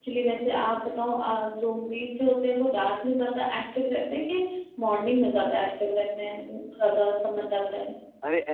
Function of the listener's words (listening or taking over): taking over